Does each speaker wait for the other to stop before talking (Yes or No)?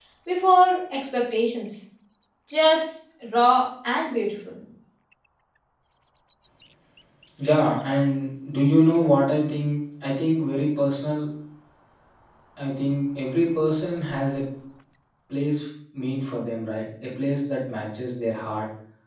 Yes